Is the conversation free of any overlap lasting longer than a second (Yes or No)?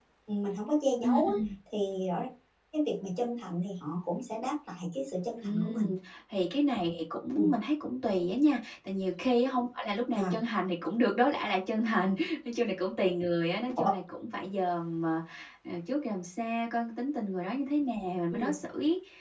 Yes